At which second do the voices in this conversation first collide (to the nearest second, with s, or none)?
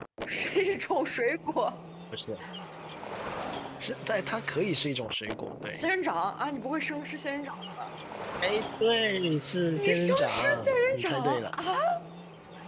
10 s